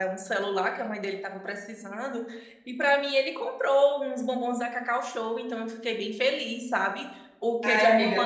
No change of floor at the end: No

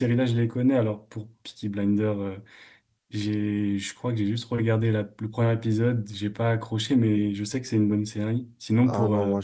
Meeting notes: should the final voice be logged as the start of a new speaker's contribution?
Yes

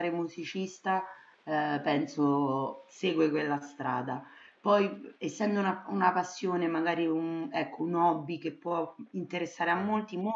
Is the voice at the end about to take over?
No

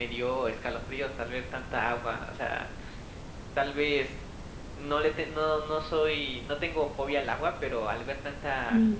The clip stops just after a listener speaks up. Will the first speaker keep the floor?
Yes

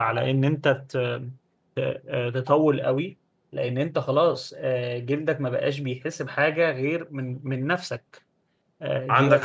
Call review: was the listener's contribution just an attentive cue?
Yes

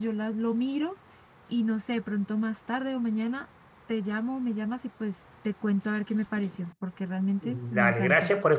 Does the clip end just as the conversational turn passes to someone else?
Yes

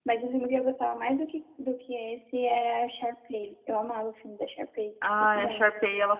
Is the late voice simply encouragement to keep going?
No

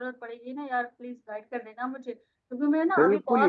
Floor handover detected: No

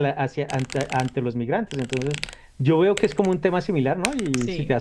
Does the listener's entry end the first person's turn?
No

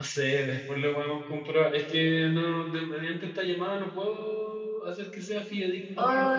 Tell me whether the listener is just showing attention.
No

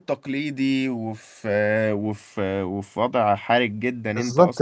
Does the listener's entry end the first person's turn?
Yes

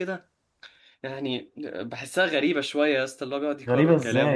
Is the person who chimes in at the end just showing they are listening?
No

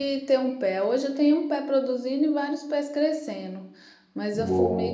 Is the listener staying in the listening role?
Yes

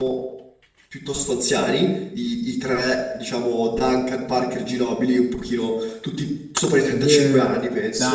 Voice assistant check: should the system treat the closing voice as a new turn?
Yes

